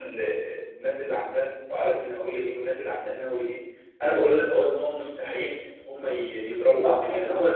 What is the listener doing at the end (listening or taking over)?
listening